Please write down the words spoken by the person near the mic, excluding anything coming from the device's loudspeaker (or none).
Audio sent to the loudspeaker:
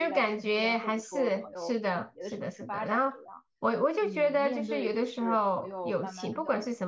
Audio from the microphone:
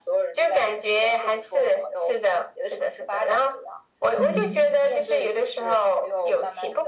嗯。